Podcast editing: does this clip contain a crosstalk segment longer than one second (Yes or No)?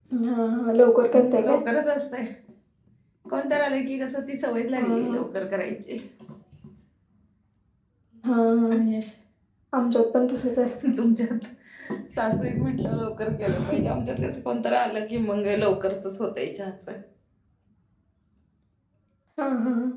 No